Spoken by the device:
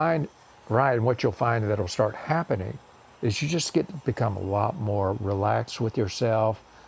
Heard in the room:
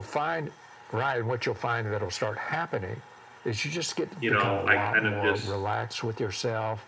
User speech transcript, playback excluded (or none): you know i kind of just